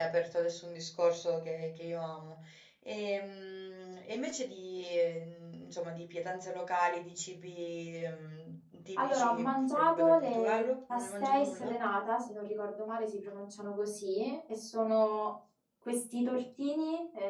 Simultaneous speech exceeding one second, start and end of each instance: 9.0-11.7

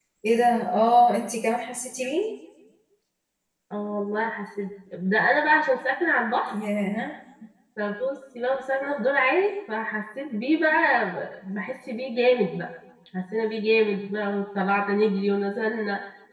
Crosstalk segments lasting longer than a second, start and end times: none

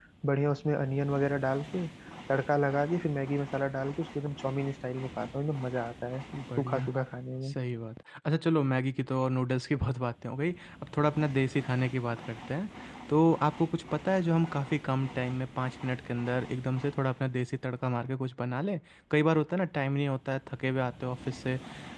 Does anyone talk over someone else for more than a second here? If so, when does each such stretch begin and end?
none

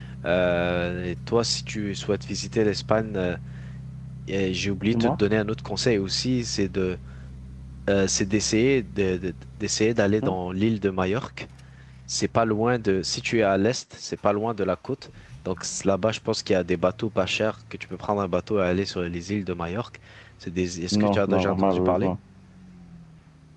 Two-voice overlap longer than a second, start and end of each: 20.9-22.1

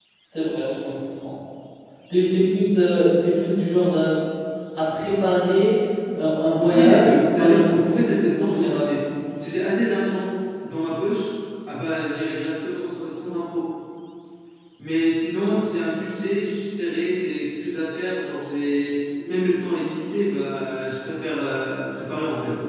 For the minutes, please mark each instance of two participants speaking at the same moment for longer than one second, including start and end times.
6.5-8.9

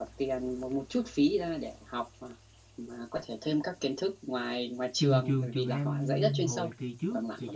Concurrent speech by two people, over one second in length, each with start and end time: 5.0-6.7

